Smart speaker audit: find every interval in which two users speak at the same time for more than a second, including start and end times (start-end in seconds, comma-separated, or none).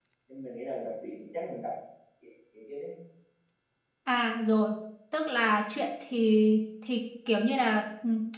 none